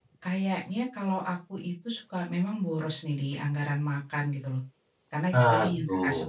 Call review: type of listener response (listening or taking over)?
listening